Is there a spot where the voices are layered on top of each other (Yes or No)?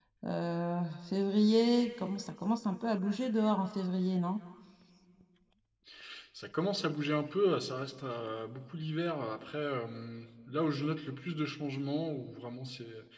No